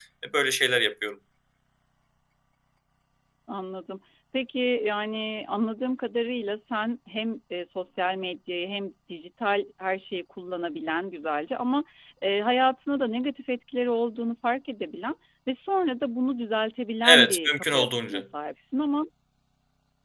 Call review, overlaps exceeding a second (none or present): present